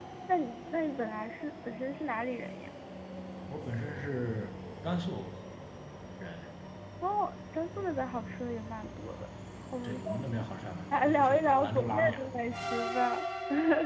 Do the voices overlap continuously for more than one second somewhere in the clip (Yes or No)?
Yes